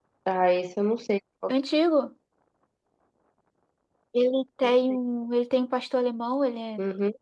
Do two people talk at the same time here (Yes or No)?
No